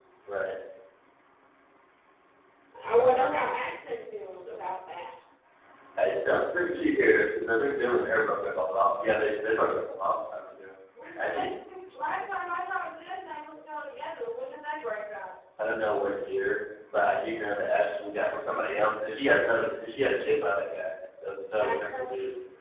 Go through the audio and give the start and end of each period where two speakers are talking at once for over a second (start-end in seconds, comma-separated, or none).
none